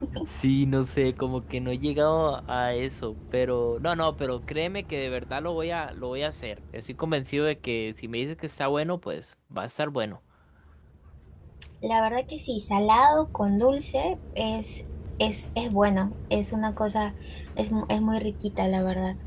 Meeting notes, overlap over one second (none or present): none